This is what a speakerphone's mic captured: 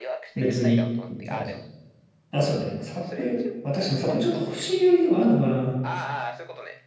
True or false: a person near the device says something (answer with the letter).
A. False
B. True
B